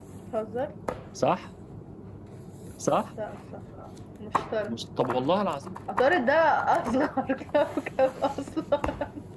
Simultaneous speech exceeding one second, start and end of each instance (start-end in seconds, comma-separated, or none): none